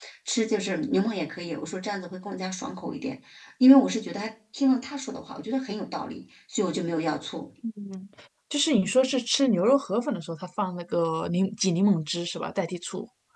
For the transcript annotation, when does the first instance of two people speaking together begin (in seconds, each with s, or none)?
none